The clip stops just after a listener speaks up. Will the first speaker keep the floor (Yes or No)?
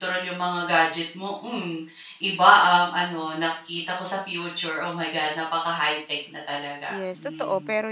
No